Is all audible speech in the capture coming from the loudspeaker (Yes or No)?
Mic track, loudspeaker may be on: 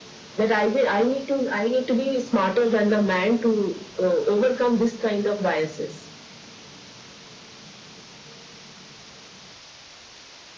Yes